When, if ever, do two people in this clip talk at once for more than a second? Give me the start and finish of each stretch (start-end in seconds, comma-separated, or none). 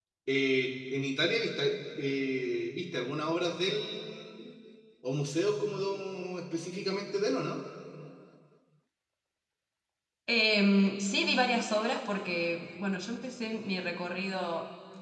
none